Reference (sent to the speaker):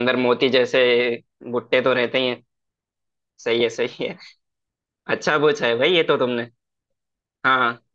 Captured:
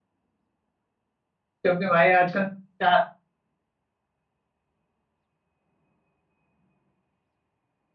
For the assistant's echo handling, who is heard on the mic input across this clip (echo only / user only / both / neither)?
user only